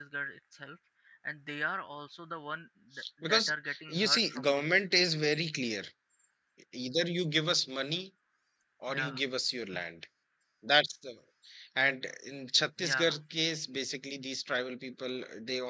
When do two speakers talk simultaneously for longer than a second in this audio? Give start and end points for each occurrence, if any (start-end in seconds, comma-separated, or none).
3.2-4.8